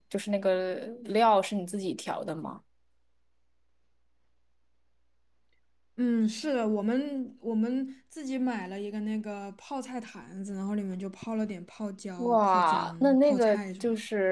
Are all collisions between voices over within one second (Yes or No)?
No